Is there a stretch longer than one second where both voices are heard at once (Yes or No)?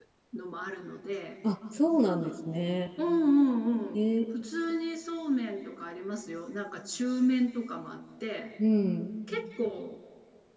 No